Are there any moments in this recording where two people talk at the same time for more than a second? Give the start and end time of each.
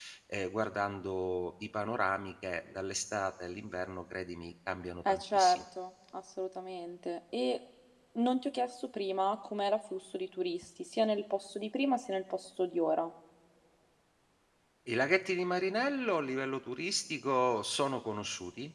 none

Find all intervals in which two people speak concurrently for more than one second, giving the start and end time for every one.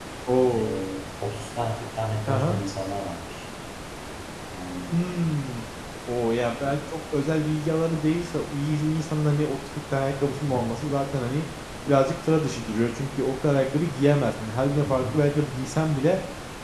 none

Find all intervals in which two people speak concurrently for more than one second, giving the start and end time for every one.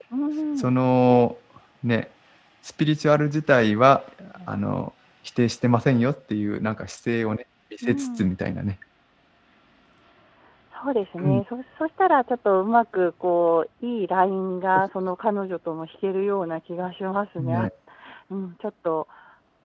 none

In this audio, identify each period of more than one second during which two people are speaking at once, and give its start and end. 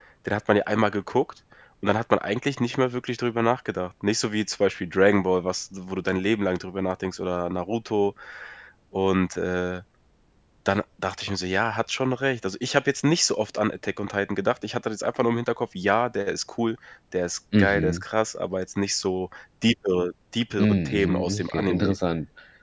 20.6-22.0

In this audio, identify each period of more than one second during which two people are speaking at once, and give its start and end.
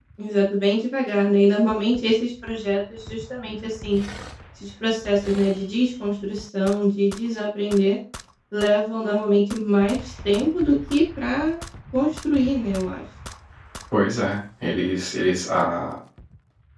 none

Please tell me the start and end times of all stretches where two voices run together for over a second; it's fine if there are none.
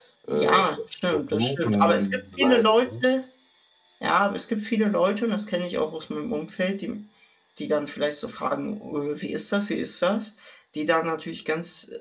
1.1-3.0

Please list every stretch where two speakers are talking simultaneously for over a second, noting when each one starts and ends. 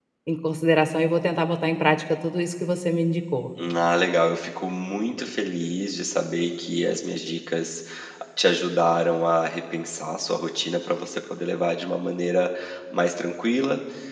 none

